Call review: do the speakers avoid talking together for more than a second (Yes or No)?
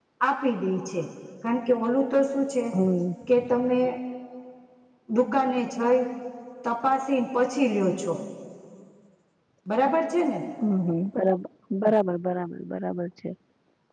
Yes